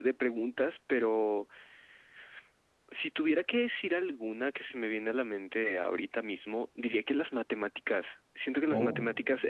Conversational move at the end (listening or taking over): listening